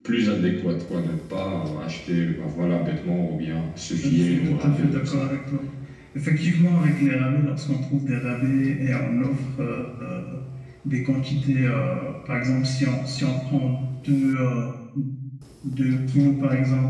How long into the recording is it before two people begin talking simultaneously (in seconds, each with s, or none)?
4.0 s